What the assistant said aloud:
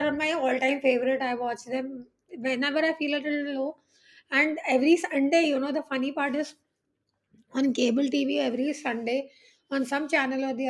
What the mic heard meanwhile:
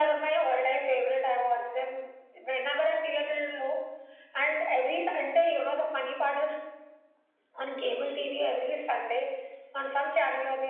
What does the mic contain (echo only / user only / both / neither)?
echo only